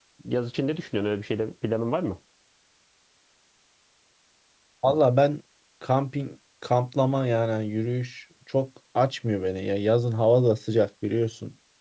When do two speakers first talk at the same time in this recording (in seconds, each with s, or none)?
none